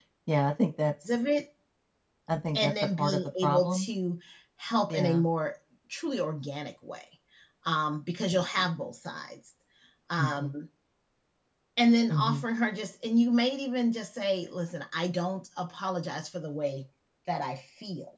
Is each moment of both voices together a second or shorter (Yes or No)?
No